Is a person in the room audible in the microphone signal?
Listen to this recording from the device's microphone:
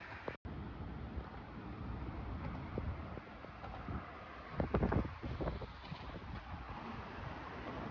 No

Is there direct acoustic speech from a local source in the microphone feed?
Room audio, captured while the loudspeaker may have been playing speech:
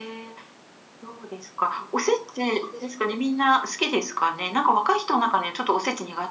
No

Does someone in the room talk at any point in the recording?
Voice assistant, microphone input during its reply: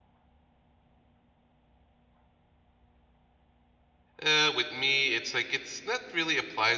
Yes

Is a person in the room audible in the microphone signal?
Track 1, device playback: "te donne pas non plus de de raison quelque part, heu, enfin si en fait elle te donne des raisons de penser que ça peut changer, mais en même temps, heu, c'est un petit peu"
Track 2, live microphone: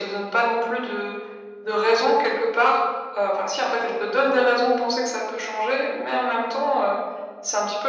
No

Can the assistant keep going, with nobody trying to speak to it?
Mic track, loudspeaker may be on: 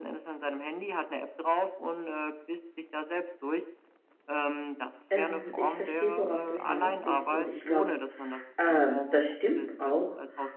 No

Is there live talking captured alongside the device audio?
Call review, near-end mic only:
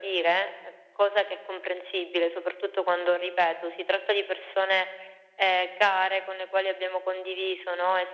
No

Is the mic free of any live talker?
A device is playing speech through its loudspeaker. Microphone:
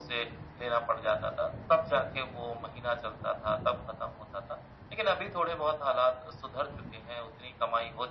Yes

